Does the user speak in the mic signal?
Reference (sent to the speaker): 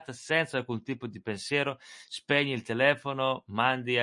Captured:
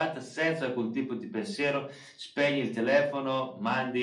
No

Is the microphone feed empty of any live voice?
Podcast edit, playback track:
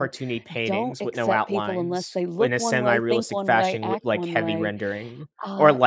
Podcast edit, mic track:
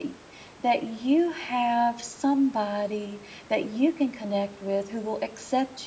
No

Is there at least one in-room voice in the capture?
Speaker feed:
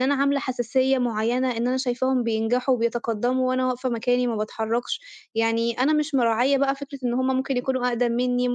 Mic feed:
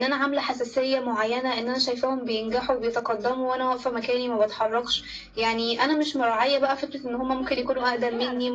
Yes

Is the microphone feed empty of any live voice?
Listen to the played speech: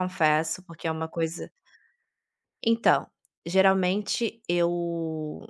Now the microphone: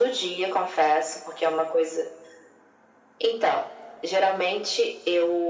Yes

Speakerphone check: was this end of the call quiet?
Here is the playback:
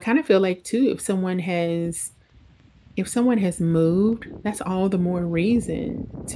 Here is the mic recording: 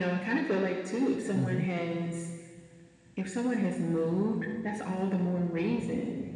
No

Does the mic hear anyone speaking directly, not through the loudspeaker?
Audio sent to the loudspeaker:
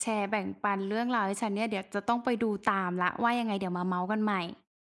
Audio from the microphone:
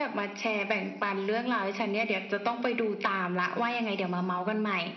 No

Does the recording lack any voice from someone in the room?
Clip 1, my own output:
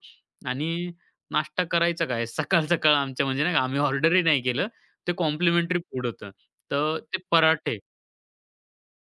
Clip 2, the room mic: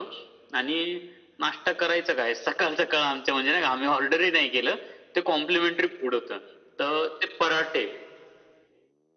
Yes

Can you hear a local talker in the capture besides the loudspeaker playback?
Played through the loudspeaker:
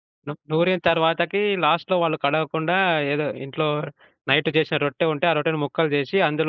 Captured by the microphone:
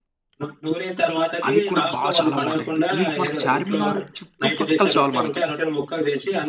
Yes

